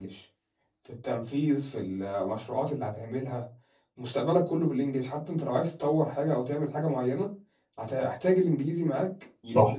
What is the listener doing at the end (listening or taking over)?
taking over